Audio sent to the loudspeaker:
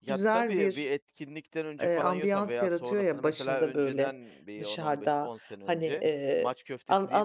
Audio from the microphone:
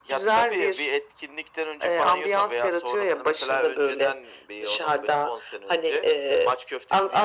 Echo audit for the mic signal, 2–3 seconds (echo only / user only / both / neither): echo only